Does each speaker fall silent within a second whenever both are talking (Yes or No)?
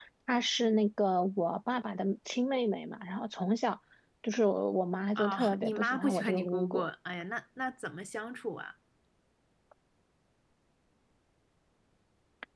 No